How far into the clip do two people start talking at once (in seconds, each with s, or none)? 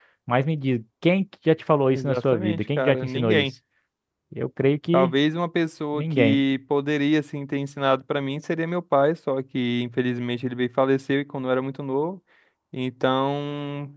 1.9 s